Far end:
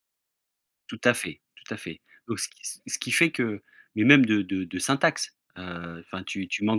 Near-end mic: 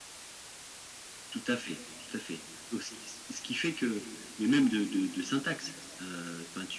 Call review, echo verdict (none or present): present